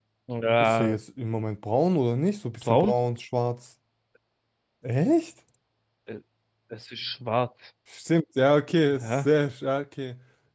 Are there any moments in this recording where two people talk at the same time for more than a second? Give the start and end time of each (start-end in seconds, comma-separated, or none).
none